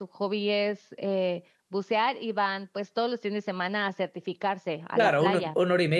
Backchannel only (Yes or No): No